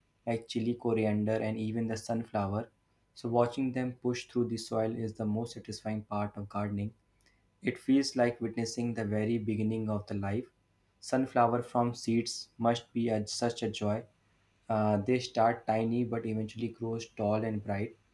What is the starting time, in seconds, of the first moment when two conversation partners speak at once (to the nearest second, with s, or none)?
none